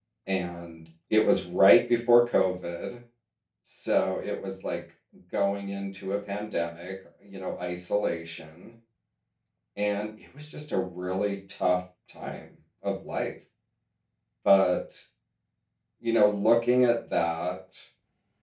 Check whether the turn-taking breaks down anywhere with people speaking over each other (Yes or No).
No